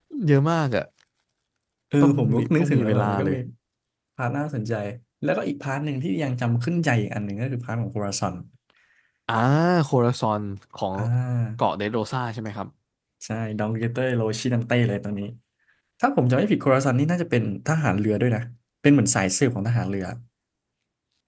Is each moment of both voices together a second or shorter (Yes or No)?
No